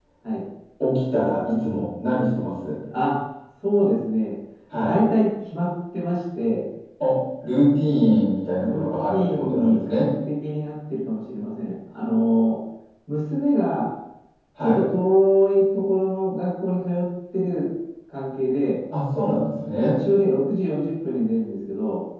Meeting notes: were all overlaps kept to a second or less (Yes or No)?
No